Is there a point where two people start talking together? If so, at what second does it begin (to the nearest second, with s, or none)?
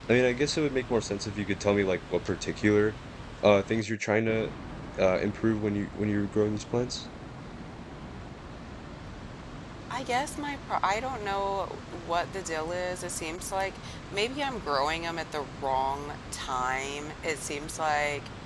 none